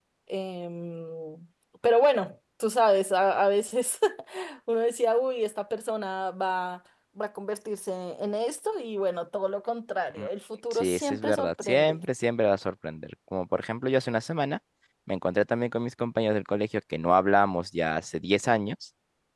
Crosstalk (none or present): present